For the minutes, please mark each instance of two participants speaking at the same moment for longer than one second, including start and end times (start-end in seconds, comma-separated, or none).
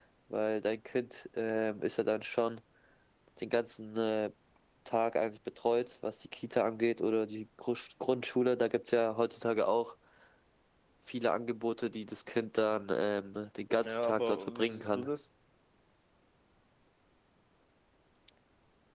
13.7-15.1